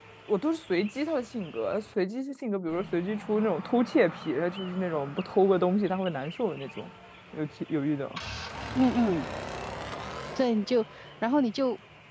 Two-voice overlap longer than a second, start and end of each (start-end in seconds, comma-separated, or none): none